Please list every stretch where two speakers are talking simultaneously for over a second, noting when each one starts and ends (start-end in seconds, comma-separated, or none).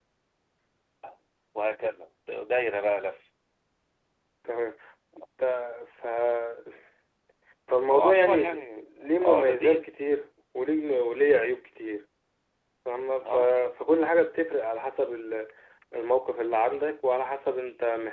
7.9-9.9